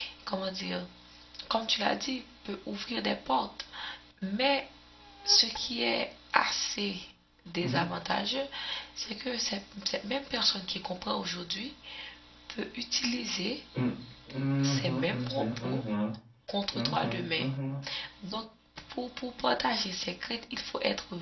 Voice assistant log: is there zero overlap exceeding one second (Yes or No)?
No